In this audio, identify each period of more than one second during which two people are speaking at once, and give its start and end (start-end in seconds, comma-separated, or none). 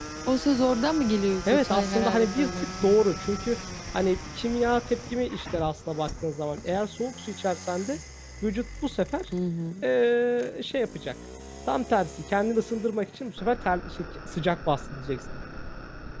1.4-3.0